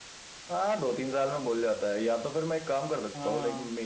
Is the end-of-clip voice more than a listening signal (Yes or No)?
No